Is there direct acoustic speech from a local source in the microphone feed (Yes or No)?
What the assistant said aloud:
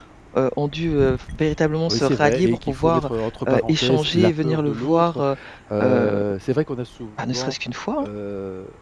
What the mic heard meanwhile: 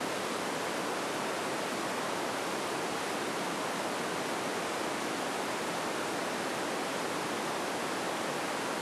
No